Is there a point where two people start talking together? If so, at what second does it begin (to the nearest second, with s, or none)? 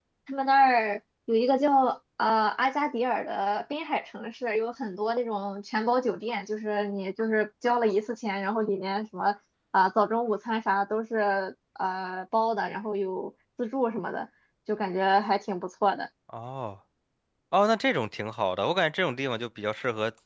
none